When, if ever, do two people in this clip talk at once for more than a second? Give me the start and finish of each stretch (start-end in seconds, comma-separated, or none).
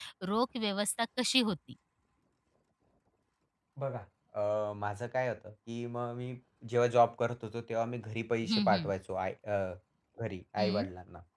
none